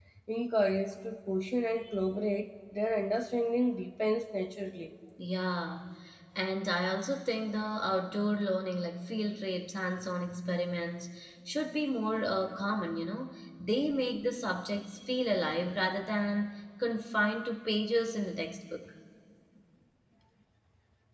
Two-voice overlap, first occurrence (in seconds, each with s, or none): none